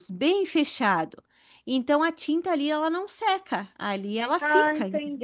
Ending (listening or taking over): taking over